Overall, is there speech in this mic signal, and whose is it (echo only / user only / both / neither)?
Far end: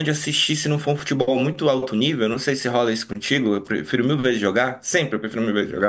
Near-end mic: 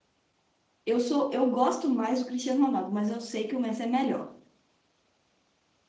user only